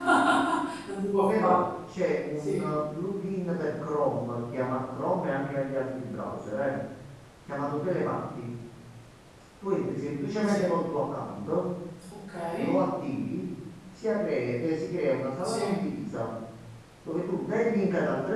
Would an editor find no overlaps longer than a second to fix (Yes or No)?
Yes